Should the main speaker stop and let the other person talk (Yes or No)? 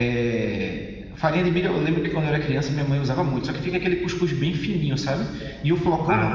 No